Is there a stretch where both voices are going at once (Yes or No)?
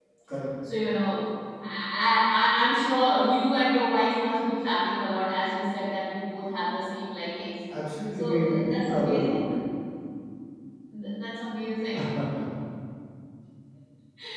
Yes